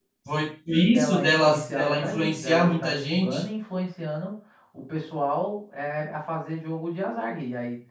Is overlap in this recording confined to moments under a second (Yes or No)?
No